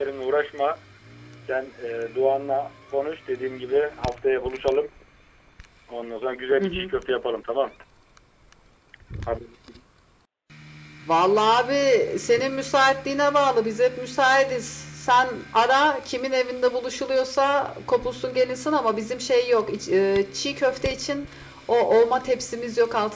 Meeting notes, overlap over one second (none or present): none